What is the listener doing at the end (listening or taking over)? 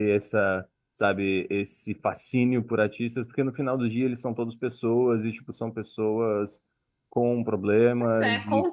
taking over